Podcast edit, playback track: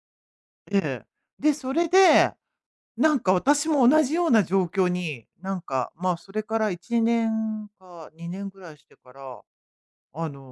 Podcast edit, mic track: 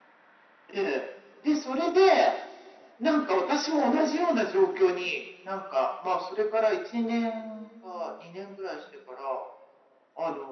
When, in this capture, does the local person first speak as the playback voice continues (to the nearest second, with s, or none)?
none